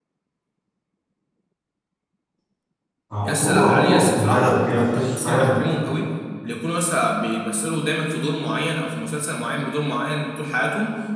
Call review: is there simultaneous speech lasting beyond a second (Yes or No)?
Yes